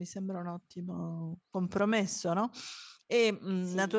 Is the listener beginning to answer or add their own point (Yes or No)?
No